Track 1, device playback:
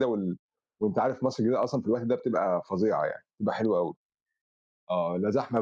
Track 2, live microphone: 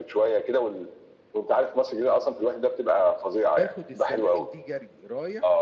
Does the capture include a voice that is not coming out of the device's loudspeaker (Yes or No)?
Yes